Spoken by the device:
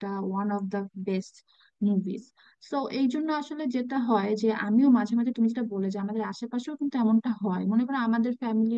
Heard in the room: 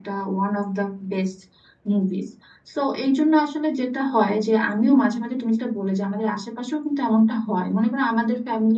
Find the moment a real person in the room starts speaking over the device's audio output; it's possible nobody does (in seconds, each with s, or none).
none